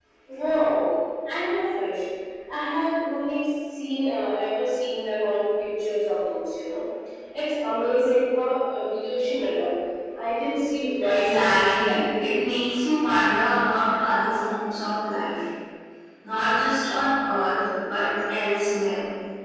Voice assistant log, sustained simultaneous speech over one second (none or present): present